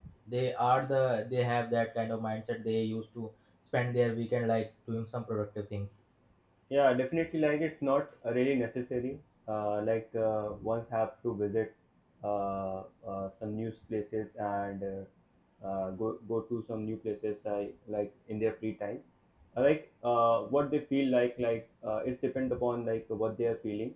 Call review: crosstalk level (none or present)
none